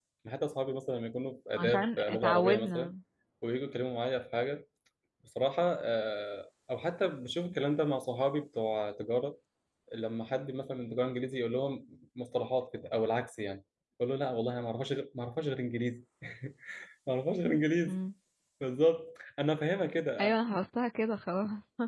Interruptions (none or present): present